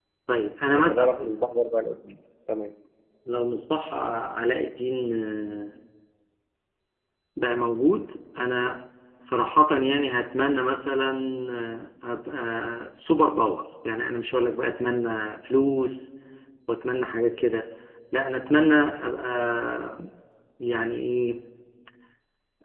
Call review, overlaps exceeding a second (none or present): none